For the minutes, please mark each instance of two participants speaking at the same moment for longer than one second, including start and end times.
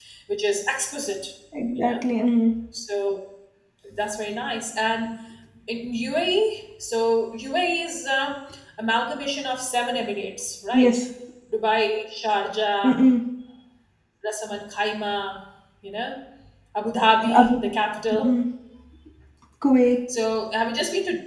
none

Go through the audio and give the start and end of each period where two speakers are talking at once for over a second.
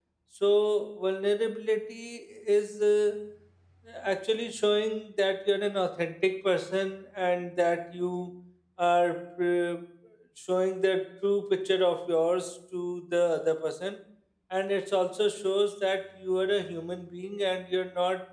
none

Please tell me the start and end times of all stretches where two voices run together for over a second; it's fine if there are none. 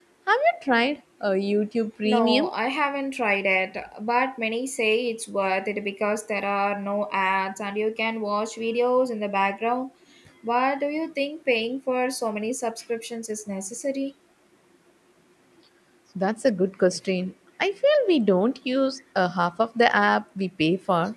none

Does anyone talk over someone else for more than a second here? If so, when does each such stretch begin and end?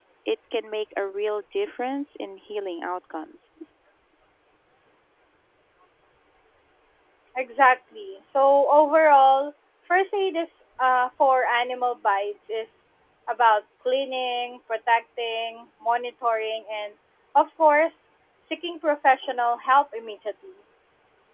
none

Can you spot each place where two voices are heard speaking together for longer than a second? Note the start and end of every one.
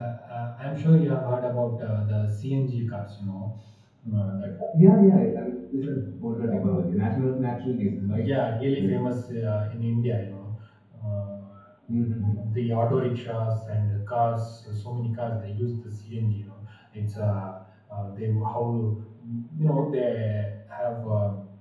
none

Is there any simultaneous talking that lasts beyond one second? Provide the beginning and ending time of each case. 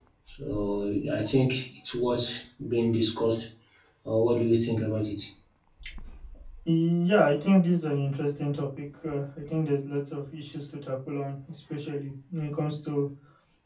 none

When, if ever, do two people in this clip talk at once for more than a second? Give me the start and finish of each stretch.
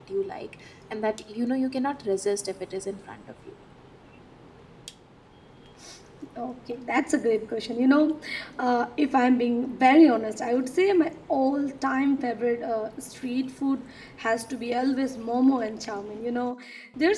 none

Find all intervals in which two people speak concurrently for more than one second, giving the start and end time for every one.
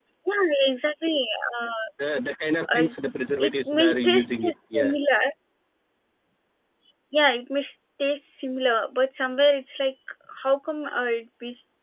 3.4-4.9

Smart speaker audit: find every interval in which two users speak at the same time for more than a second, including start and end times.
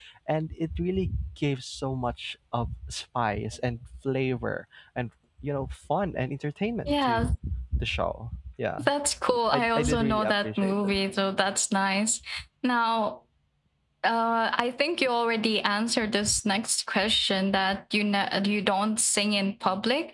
9.5-11.0

